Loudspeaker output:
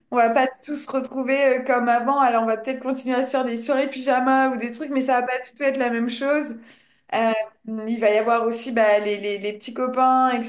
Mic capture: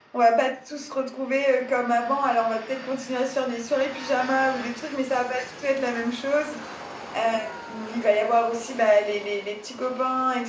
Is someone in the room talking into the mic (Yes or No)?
No